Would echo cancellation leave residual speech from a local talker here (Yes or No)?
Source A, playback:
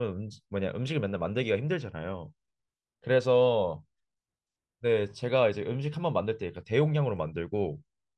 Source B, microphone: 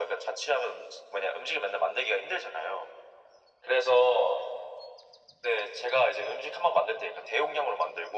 No